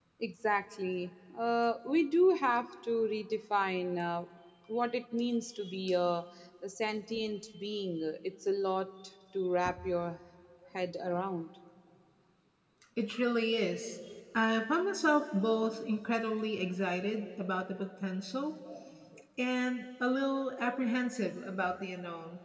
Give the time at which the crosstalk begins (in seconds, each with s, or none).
none